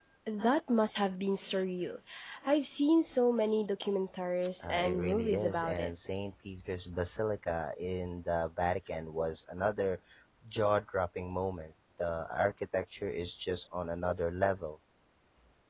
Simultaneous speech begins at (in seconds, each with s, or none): 4.6 s